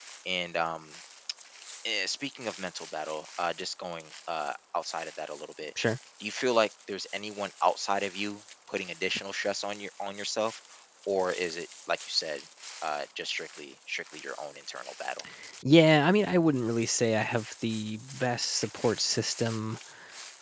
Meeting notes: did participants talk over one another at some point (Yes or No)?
No